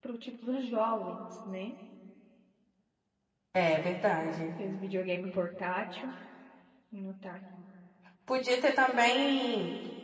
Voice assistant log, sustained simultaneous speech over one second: none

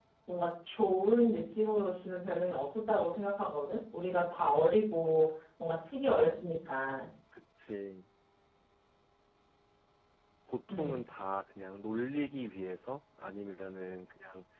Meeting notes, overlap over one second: none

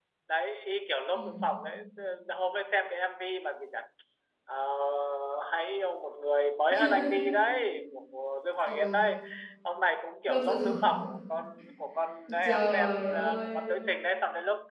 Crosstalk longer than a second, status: present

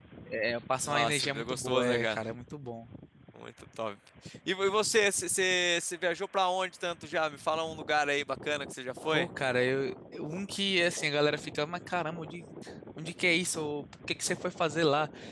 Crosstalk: present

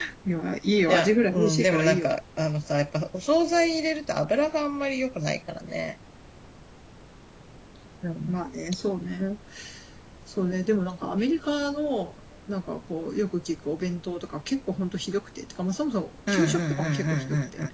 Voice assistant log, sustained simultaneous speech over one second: present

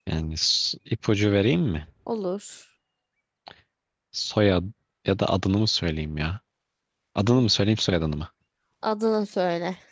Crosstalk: none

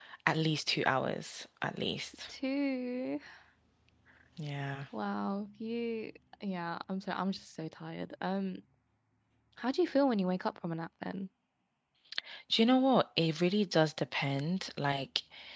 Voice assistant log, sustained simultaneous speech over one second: none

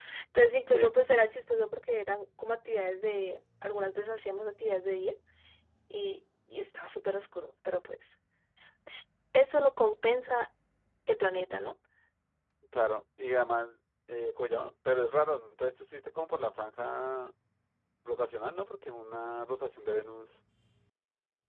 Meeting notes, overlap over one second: none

